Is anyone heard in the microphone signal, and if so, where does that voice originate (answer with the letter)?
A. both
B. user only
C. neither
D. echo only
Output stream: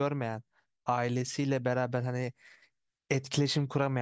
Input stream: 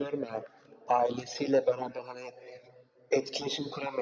D